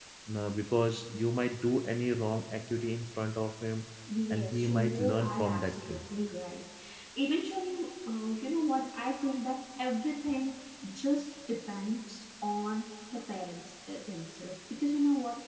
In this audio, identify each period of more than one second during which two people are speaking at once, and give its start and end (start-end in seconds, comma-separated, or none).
4.3-6.0